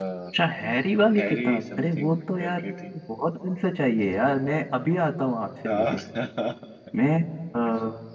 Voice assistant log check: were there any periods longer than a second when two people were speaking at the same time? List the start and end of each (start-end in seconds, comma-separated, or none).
1.2-2.6